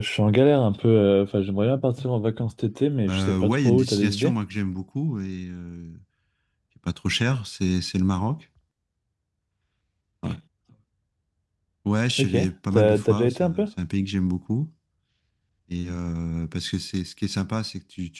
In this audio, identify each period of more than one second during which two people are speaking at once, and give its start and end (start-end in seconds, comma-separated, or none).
3.1-4.3, 12.2-13.7